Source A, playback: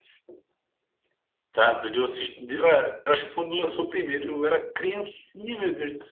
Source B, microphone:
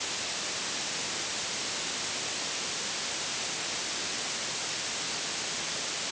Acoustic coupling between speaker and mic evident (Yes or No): No